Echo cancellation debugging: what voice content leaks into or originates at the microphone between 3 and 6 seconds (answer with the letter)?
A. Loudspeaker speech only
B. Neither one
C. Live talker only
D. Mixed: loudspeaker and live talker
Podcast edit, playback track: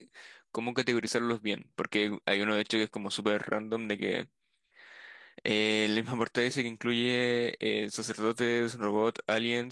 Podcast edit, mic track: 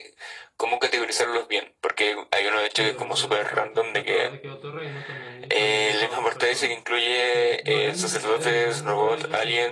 D